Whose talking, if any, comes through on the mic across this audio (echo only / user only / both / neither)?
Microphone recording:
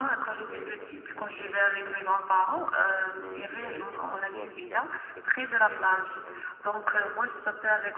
both